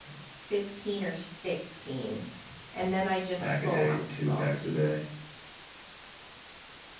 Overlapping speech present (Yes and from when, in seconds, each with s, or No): Yes, from 3.4 s